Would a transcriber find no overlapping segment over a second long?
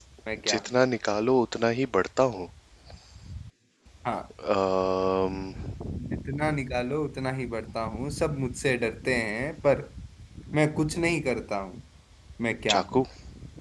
Yes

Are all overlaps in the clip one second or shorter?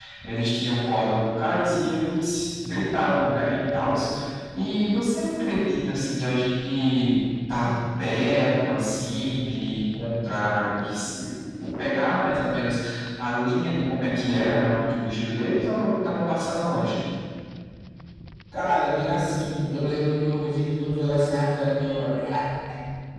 Yes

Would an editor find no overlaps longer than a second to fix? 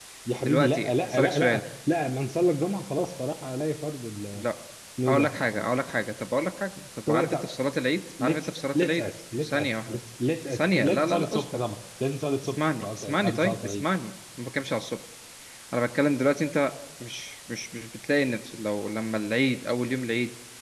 No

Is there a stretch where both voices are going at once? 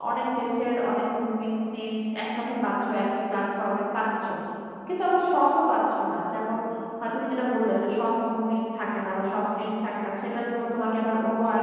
No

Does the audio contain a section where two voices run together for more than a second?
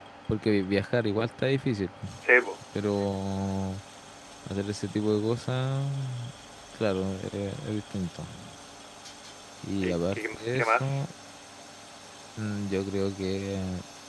Yes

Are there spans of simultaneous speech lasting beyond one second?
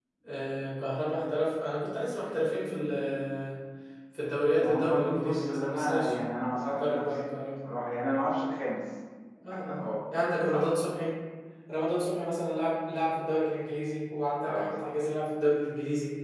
Yes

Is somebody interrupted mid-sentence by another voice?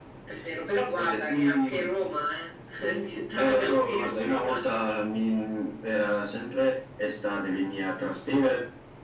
Yes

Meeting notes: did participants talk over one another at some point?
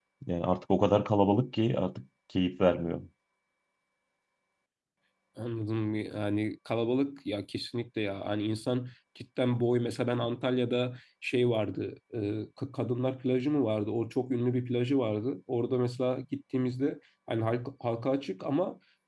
No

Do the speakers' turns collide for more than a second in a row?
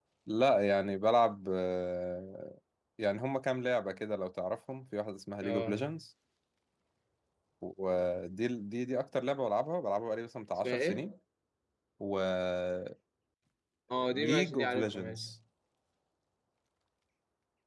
Yes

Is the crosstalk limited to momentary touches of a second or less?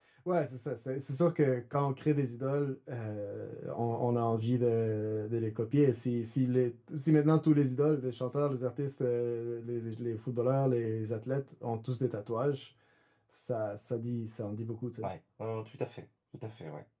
Yes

